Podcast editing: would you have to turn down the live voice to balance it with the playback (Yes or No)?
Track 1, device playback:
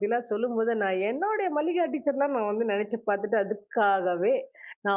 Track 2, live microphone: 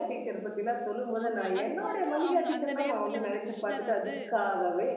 No